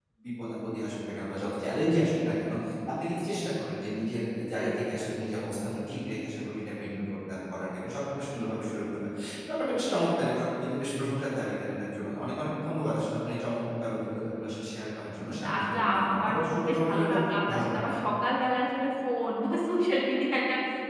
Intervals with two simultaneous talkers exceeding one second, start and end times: 15.6-17.1

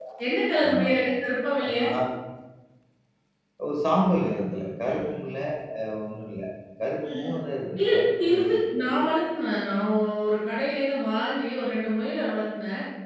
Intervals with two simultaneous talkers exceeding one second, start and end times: 7.8-9.0

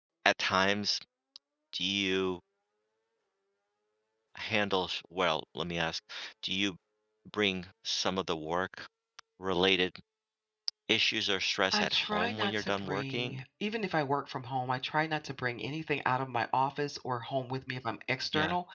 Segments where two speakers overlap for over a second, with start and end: 11.7-13.4

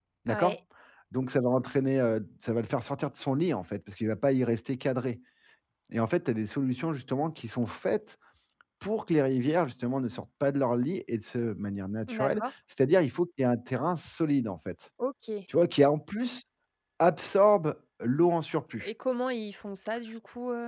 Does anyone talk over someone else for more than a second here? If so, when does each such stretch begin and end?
none

